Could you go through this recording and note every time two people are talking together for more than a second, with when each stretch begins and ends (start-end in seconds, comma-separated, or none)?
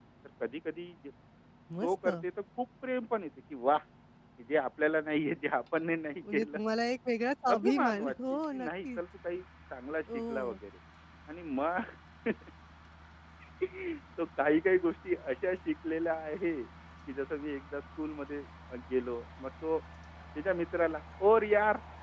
7.5-9.0